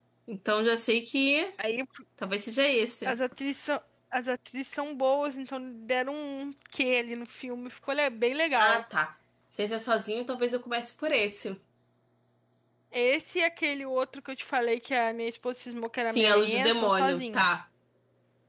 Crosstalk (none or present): present